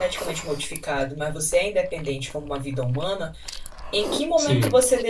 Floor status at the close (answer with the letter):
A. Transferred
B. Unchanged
B